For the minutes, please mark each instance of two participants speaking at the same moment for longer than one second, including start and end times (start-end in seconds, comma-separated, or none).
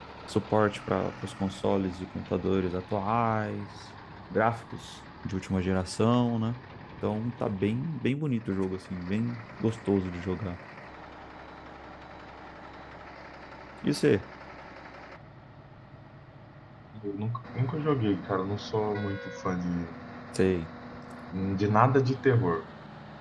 none